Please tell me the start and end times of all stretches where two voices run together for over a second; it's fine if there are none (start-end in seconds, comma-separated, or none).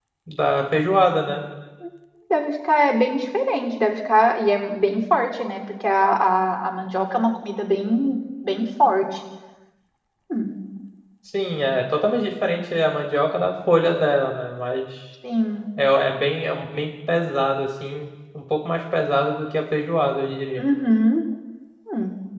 none